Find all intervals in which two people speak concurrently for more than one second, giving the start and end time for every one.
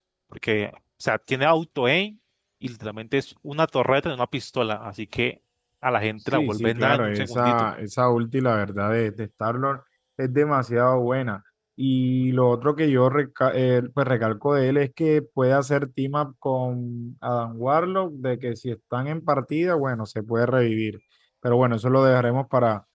6.3-7.7

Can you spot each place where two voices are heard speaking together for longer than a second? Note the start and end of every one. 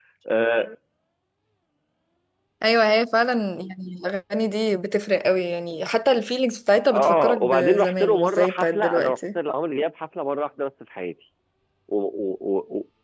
6.9-9.2

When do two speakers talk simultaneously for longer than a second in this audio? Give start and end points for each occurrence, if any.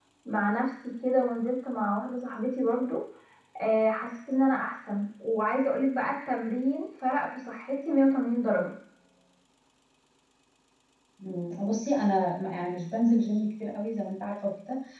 none

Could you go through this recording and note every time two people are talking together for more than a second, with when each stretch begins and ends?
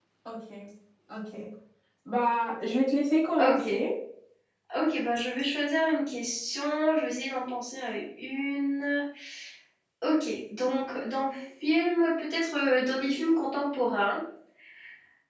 none

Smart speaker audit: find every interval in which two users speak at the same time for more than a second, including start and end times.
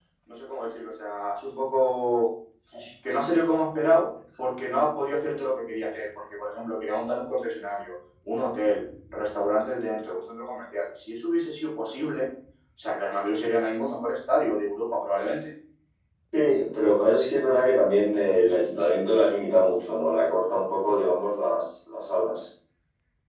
none

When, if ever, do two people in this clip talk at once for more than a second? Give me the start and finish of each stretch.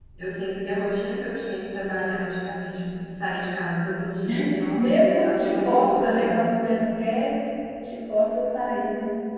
4.8-6.4

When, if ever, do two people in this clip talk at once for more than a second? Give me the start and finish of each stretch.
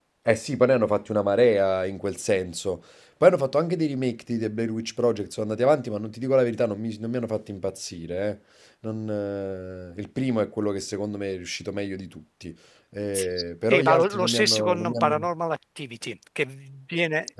13.7-15.1

